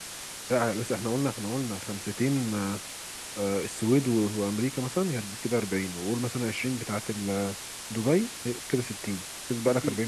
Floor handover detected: Yes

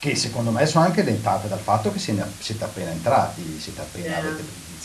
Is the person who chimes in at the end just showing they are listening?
Yes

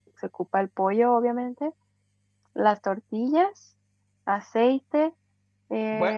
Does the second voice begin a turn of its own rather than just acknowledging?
Yes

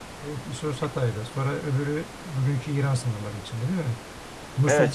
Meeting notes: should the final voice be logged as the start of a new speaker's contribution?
Yes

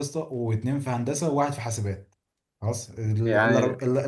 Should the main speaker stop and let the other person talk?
No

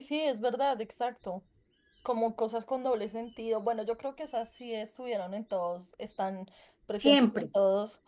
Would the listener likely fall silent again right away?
Yes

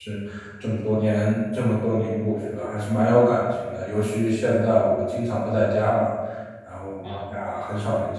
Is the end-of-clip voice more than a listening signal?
No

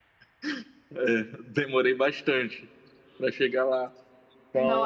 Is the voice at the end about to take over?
Yes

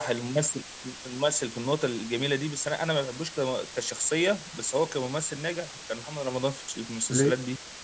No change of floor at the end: No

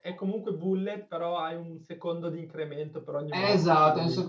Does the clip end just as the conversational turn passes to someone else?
Yes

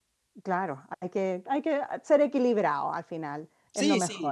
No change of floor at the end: No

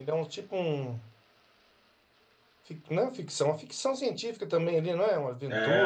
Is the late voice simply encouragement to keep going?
No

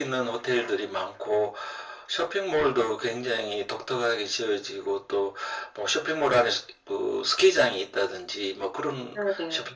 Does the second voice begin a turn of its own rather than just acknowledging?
No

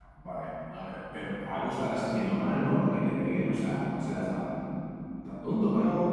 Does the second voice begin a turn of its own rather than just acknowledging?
Yes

